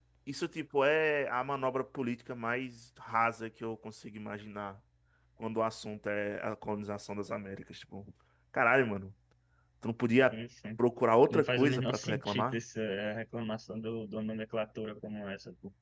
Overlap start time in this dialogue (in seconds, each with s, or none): 11.3 s